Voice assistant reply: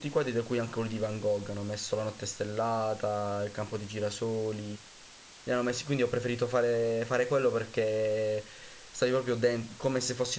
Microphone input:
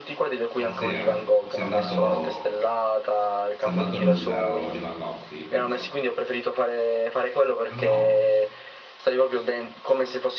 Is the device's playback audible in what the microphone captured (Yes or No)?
Yes